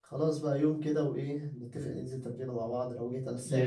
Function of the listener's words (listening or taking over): taking over